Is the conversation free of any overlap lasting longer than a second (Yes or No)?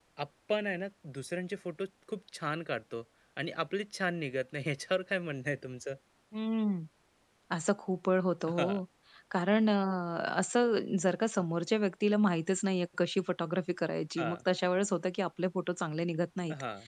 Yes